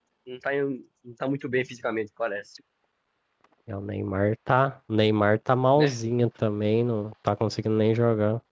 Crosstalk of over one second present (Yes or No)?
No